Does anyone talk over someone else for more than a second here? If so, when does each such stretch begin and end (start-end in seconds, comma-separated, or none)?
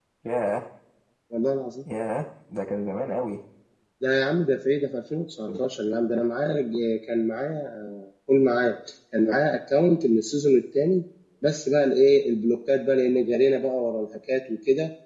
none